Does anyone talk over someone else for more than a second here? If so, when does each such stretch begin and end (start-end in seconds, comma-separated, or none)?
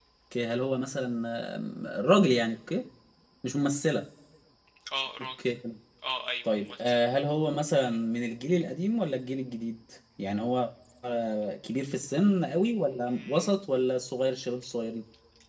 none